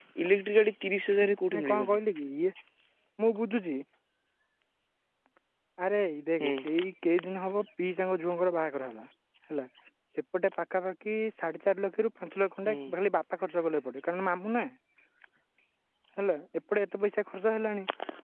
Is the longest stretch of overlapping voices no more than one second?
Yes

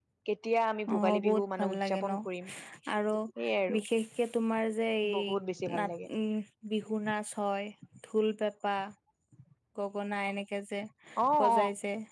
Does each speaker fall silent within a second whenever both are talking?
No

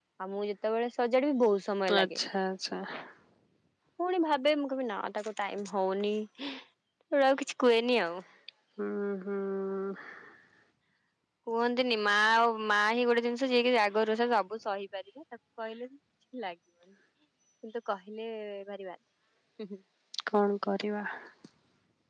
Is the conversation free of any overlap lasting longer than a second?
Yes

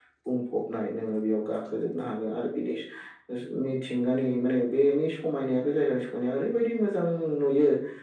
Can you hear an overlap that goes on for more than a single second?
No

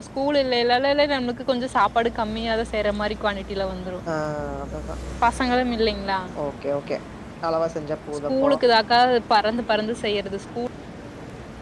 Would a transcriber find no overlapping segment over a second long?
Yes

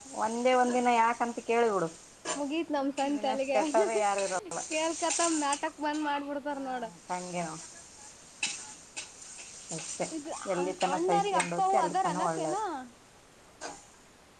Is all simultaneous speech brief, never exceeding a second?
No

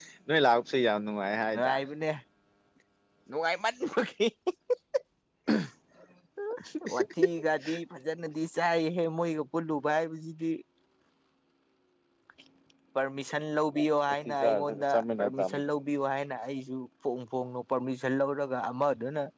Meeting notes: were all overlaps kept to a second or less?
No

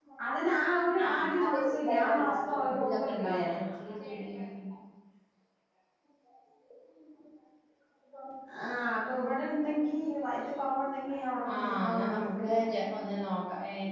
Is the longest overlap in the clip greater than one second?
Yes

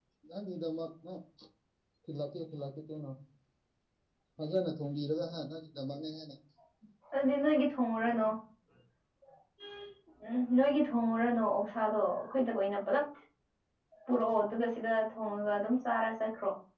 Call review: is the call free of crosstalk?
Yes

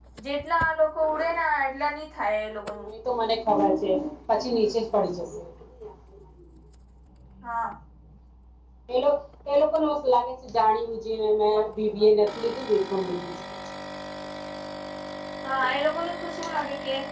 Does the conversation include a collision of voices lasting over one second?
No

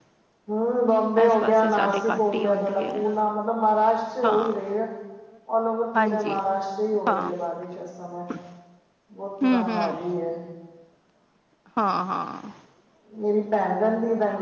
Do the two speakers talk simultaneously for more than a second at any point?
Yes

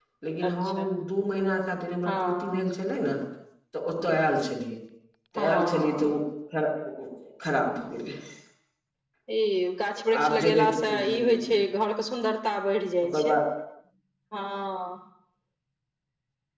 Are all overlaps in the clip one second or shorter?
No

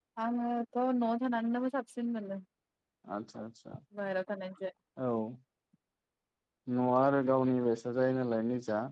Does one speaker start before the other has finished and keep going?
No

